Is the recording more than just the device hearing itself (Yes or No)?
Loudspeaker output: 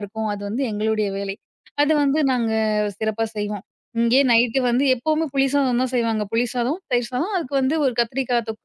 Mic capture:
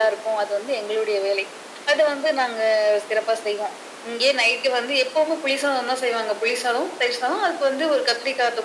No